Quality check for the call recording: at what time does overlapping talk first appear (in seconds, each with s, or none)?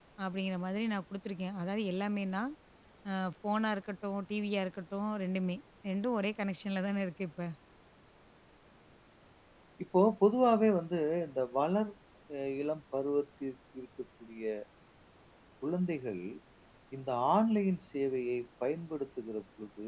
none